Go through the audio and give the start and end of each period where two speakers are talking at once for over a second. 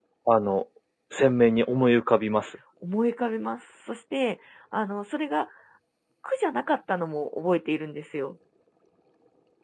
none

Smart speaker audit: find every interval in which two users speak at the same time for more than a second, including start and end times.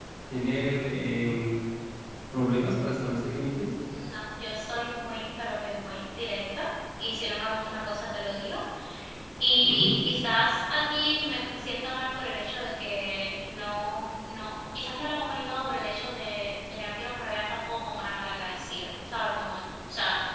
none

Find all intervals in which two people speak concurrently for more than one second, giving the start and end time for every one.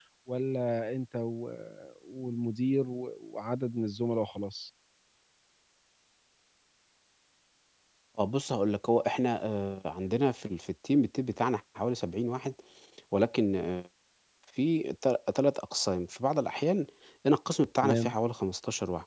none

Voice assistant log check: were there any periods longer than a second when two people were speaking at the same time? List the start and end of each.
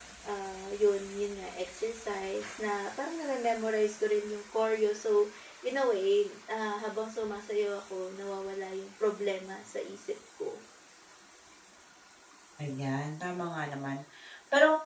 none

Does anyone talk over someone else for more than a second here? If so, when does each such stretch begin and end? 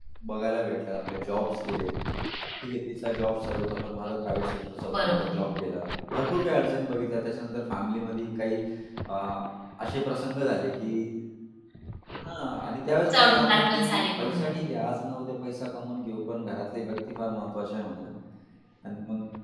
13.1-14.4

